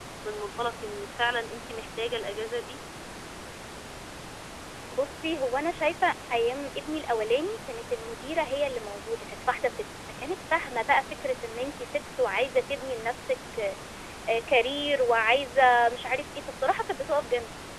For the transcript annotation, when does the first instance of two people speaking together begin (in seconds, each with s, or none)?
none